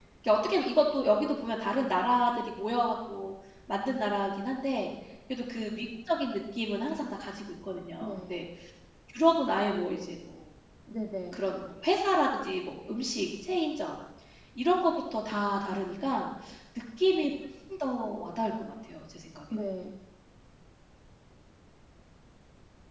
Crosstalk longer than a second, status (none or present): none